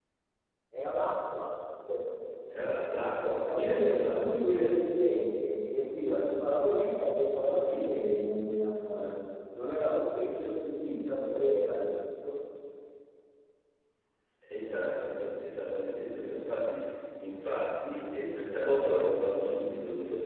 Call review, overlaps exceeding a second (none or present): present